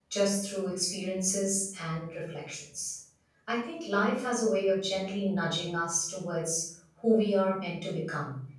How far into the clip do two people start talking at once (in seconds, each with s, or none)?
none